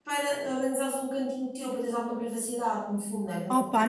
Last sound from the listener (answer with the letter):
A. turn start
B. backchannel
A